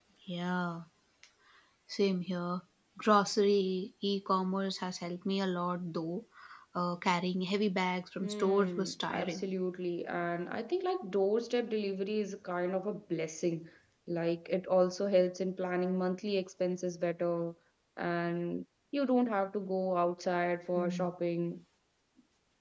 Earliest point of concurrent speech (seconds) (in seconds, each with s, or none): 8.2 s